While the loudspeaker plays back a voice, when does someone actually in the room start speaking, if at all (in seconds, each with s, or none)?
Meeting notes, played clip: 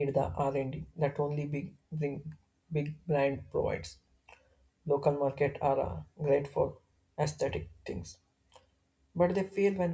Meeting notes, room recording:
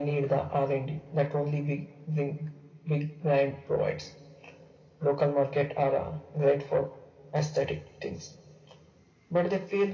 none